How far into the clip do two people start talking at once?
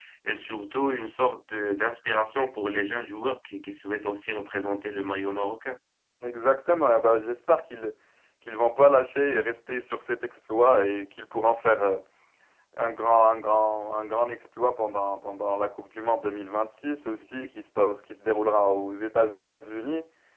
none

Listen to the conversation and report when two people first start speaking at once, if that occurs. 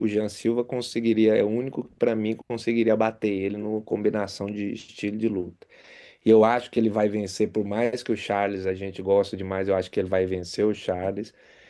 none

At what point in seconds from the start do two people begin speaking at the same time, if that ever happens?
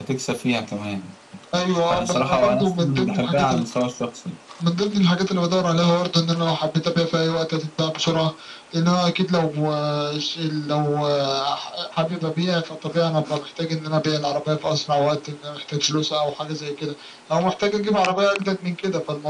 2 s

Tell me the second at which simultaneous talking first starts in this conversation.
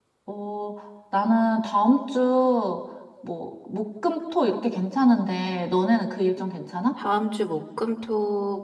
none

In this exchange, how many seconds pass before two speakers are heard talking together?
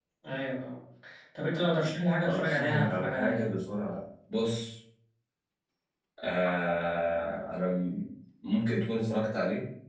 2 s

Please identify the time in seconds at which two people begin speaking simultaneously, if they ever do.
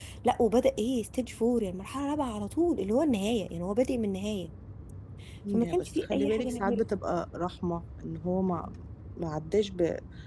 6 s

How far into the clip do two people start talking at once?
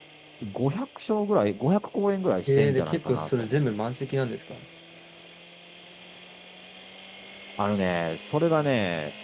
2 s

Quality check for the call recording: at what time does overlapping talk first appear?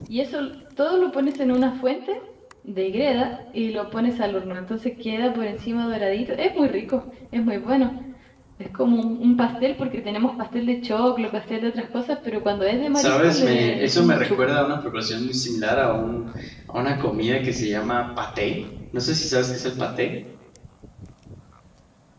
13 s

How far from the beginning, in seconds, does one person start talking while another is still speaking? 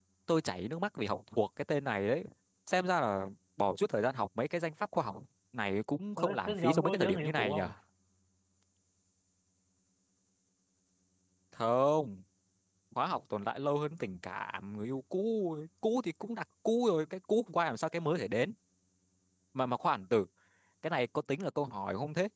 6 s

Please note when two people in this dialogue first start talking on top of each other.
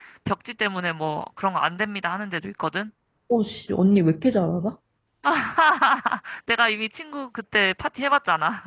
none

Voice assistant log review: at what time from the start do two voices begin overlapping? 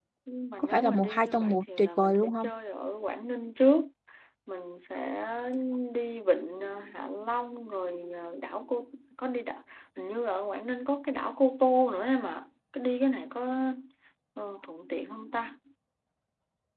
1 s

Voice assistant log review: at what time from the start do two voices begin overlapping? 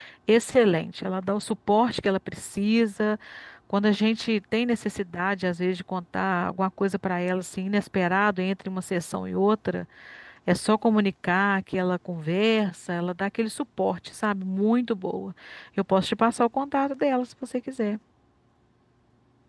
none

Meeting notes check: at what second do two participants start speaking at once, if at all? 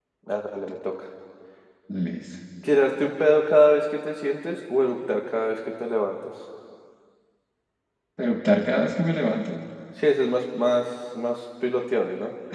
none

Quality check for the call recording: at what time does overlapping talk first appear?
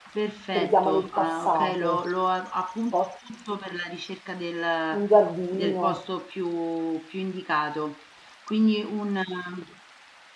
1 s

